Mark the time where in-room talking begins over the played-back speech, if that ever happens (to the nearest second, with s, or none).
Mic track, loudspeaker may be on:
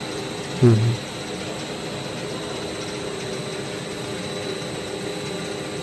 1 s